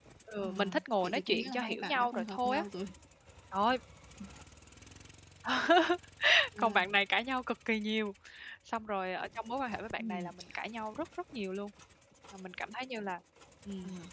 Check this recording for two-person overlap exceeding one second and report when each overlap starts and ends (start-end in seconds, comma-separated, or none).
1.0-2.6